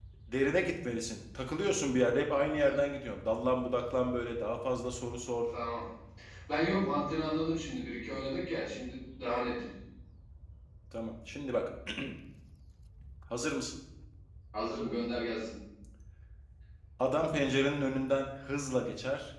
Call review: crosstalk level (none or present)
none